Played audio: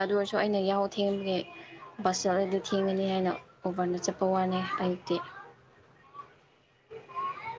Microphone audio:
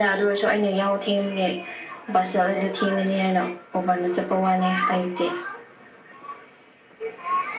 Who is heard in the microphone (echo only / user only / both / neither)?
echo only